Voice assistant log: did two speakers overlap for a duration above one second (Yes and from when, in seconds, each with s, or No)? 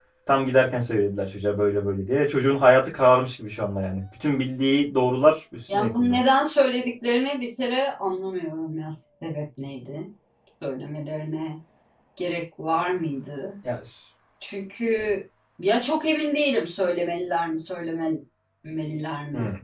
No